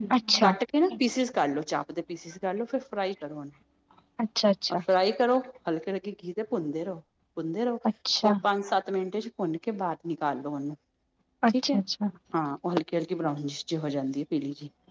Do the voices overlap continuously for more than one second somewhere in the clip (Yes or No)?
No